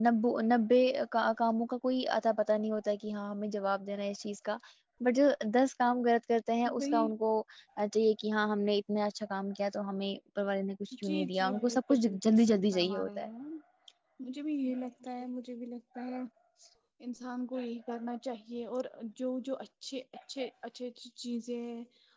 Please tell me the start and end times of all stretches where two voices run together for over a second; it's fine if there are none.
11.0-13.3

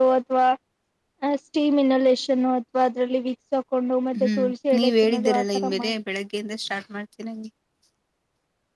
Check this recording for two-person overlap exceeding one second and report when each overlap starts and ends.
4.2-5.9

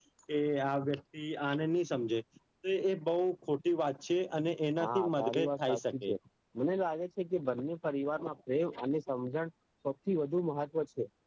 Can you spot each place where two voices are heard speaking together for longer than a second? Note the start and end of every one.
4.8-6.1

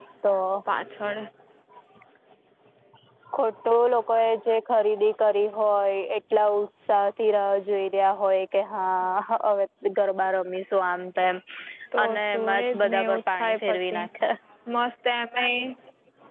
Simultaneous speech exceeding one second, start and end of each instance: 12.1-14.0

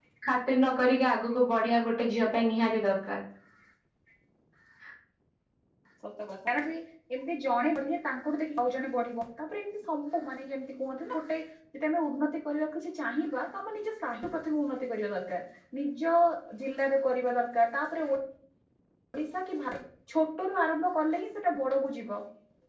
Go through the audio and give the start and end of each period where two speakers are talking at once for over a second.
none

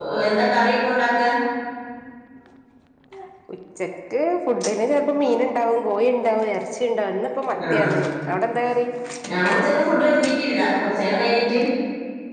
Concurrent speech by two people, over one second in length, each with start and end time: none

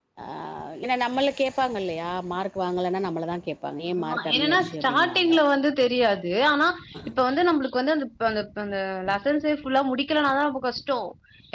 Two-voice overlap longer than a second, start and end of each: 4.0-5.3

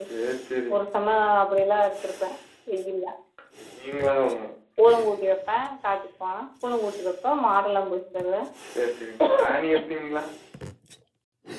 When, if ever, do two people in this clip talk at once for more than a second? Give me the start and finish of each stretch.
none

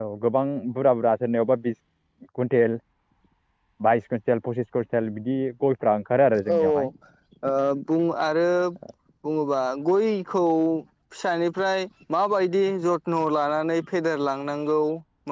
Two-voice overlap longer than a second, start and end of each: none

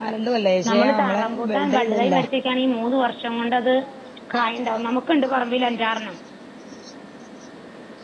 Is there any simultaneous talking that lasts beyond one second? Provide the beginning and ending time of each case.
0.7-2.2

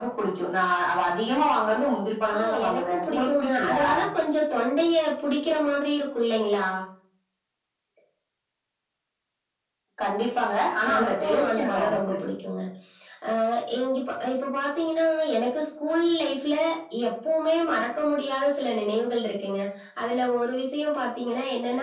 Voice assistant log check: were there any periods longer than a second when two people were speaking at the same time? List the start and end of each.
2.3-3.8, 10.9-12.2

